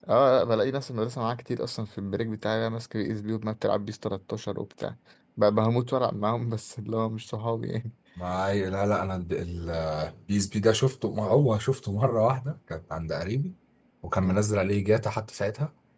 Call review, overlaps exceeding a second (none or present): none